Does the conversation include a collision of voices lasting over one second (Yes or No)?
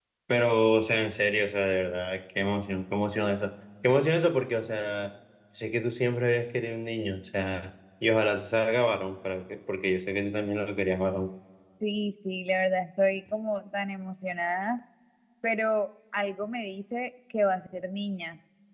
No